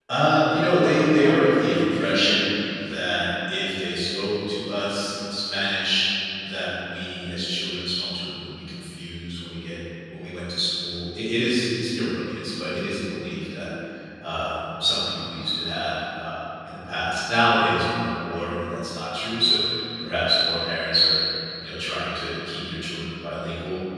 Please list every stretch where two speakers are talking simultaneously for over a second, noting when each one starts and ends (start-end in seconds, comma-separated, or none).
0.8-2.5